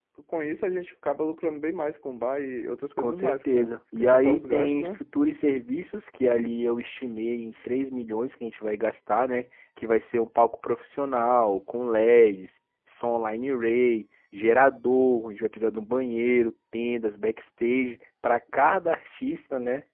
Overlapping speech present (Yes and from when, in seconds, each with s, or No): Yes, from 3.0 s